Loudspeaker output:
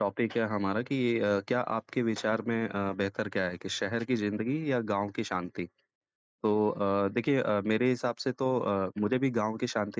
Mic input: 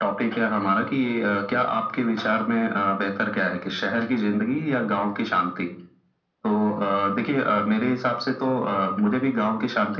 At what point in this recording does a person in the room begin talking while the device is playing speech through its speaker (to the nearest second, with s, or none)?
none